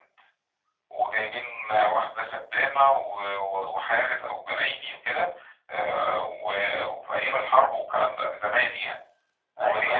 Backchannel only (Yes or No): Yes